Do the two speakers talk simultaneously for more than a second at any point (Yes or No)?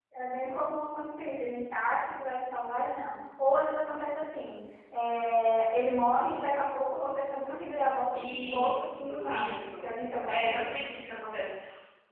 Yes